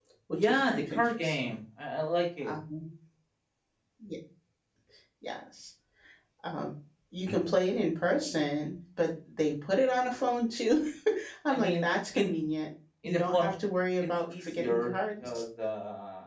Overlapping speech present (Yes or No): Yes